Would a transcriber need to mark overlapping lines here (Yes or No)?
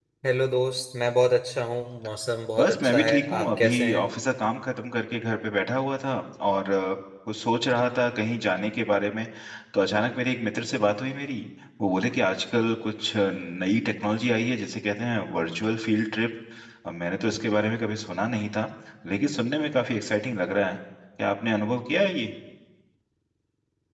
Yes